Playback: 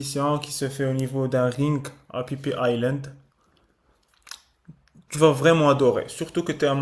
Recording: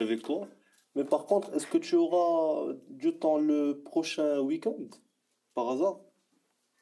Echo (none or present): none